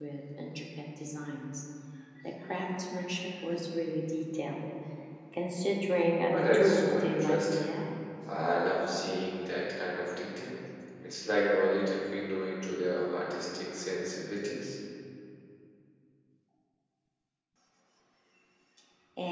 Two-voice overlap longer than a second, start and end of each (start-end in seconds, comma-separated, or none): 6.3-7.6